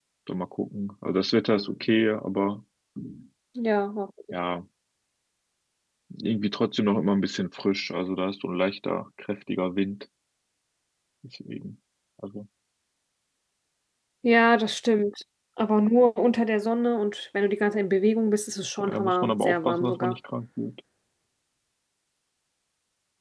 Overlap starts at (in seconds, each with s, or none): 18.8 s